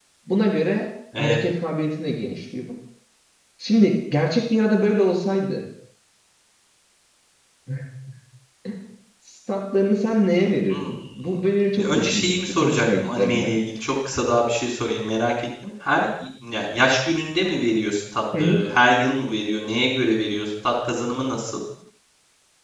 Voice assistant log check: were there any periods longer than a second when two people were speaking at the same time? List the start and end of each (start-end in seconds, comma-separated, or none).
11.8-13.5